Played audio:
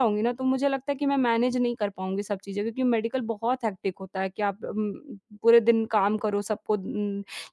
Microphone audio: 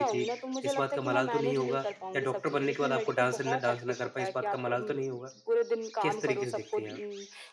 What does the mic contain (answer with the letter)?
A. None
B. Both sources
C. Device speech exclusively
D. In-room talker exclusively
B